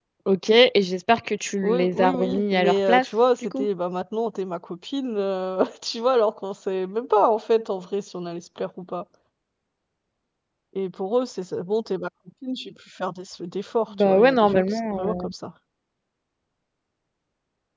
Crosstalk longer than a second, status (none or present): present